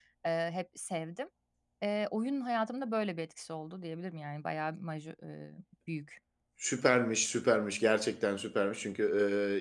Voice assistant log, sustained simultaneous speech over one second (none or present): none